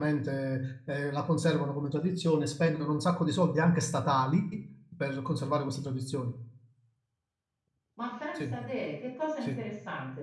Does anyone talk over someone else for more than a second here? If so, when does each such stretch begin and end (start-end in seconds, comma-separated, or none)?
none